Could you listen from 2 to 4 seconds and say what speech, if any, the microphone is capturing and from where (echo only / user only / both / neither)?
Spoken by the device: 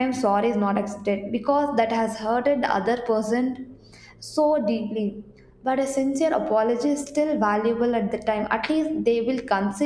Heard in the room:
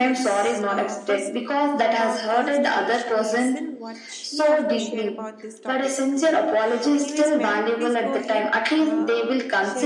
both